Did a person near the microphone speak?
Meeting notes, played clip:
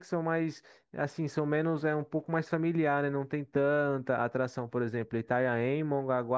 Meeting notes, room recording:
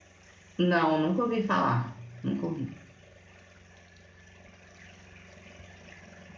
Yes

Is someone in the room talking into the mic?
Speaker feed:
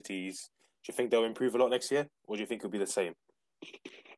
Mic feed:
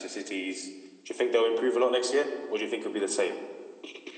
No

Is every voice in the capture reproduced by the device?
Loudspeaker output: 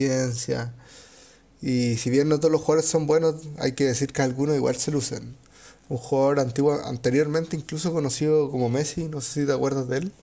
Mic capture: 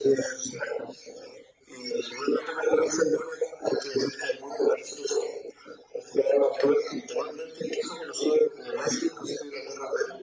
Yes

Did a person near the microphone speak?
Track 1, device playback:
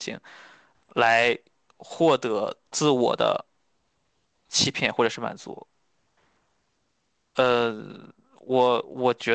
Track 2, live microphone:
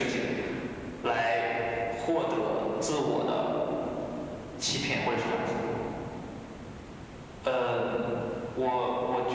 No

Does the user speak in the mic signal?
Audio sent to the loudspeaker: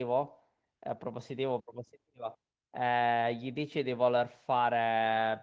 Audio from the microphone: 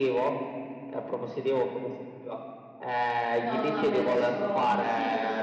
Yes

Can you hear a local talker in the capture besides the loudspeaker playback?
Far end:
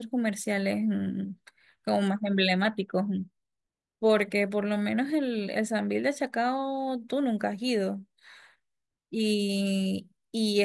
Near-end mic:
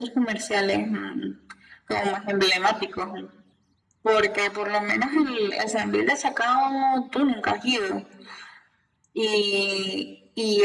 No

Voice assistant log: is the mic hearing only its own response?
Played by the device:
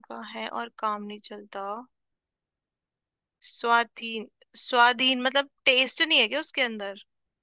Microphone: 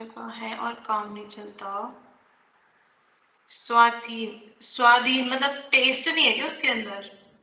Yes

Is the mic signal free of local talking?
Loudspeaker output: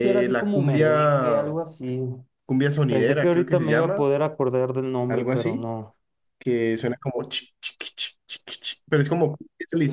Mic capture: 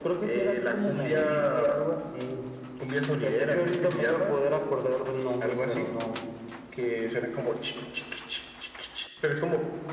Yes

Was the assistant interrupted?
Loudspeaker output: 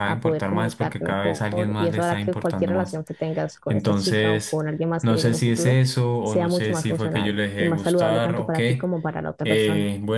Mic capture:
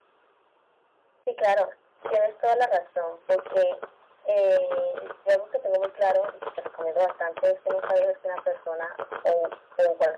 Yes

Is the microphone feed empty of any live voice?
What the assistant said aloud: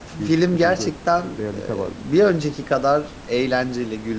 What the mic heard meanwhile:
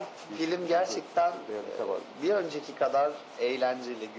Yes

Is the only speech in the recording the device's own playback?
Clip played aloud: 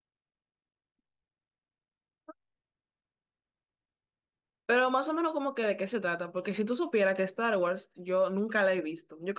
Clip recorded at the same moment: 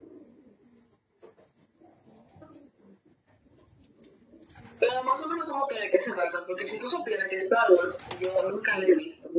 Yes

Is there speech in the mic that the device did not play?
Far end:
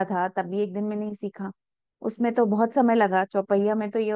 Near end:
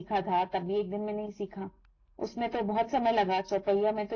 No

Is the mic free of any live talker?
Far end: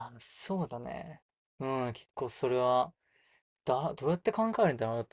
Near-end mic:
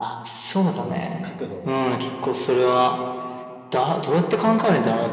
No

